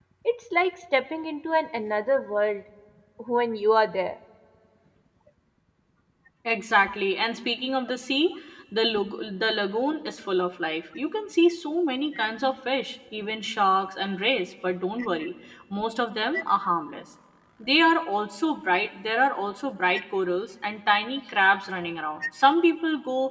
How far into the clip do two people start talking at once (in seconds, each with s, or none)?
none